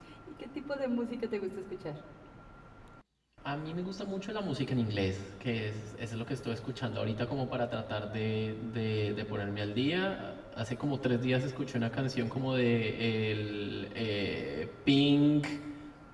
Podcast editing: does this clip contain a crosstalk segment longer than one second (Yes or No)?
No